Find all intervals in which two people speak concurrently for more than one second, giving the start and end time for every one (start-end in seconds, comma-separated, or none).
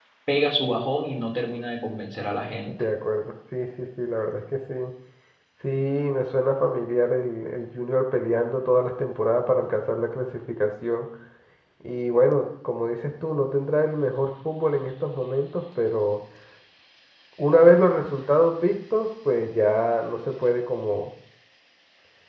none